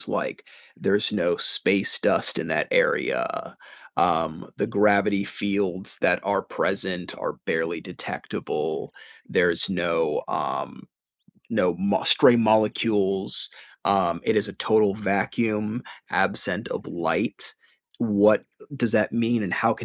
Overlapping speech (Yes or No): No